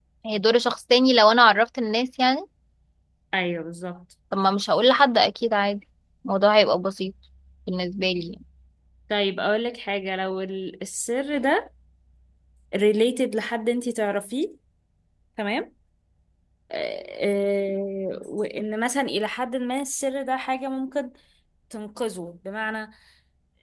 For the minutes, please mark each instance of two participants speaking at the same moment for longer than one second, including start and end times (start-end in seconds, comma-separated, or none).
none